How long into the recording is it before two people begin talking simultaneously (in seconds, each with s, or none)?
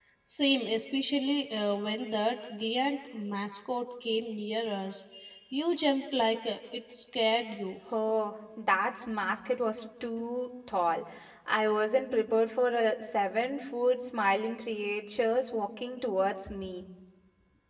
none